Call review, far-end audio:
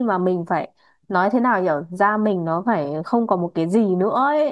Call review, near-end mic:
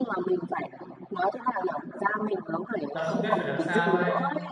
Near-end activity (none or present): present